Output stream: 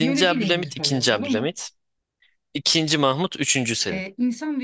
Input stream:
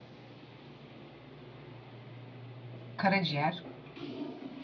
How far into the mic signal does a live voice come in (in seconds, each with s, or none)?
3.0 s